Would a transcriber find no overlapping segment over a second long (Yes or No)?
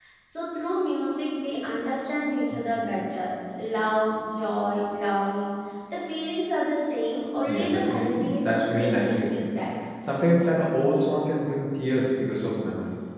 No